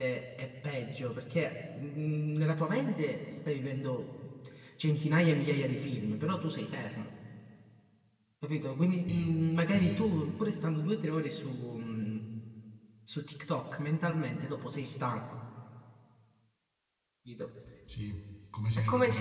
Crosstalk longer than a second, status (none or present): none